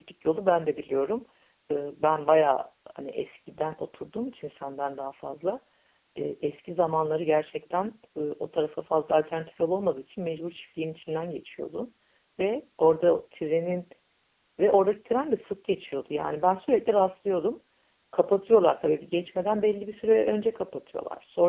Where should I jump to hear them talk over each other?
none

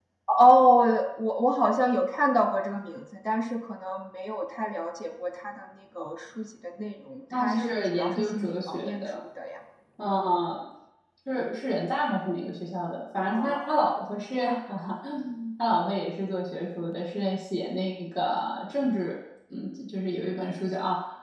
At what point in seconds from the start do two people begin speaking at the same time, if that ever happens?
7.3 s

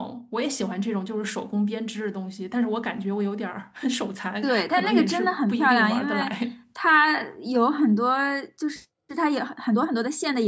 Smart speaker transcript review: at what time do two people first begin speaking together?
4.4 s

